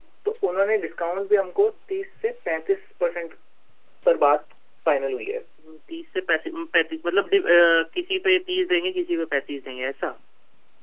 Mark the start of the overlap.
none

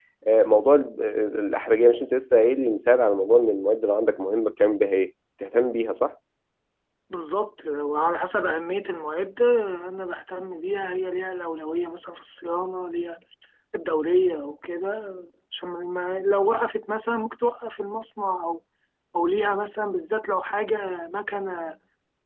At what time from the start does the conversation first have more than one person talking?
none

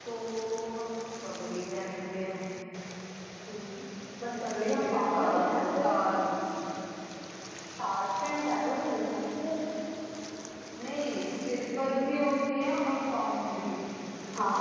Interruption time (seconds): 4.4 s

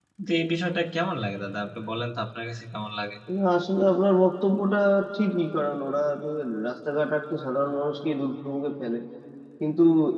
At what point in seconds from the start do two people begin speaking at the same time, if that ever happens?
none

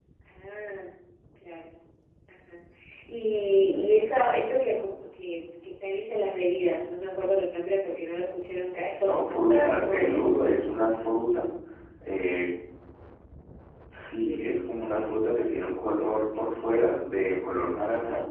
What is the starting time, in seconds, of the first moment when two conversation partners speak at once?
9.0 s

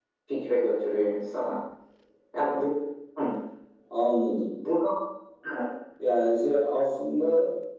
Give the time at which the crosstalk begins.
none

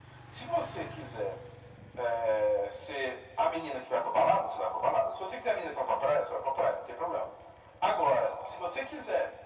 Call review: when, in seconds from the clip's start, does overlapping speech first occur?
none

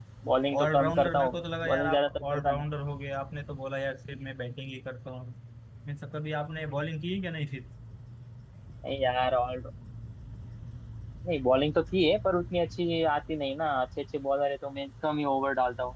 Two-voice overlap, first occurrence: 0.6 s

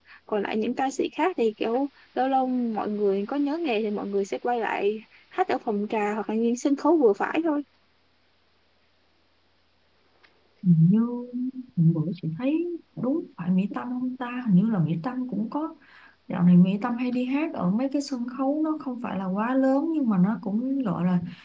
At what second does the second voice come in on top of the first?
none

